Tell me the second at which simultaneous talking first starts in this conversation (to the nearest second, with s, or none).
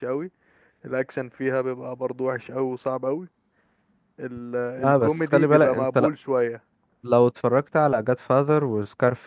5 s